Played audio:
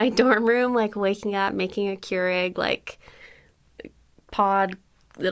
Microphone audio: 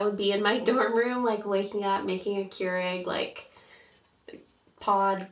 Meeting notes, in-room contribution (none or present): none